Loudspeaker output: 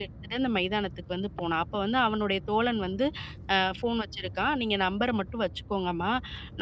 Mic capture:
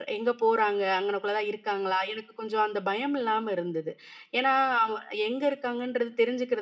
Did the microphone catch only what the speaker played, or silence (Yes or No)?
No